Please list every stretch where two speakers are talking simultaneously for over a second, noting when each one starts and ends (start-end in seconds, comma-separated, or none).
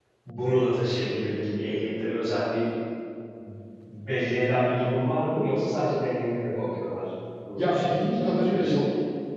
7.6-8.8